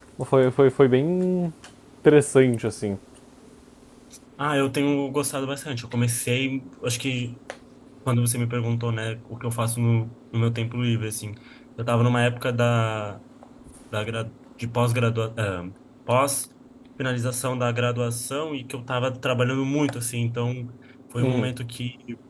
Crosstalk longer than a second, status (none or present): none